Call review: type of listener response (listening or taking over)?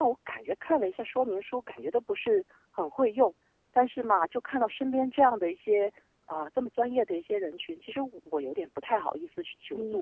taking over